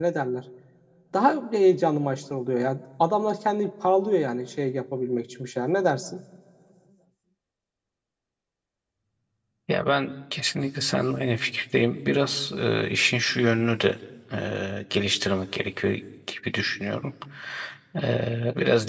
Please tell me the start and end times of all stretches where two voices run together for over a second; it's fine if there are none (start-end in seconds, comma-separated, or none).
none